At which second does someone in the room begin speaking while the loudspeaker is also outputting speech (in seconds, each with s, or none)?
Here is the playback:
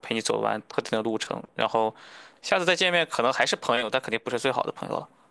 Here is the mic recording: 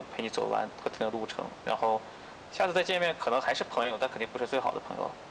none